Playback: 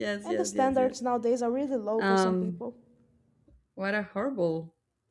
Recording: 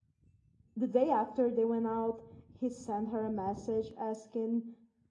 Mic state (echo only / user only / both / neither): user only